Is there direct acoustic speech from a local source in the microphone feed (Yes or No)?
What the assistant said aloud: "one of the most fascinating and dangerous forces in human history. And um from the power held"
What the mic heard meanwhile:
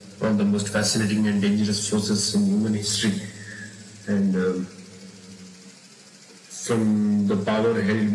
No